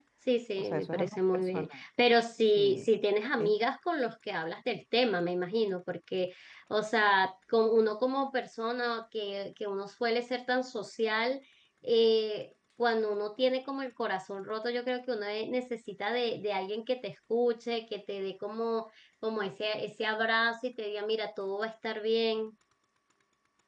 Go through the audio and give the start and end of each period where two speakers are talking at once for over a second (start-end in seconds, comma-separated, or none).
0.6-1.8